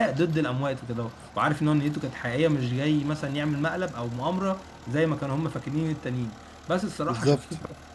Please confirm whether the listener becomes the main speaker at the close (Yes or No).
No